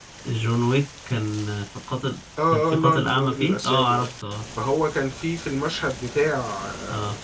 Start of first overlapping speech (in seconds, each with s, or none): 2.4 s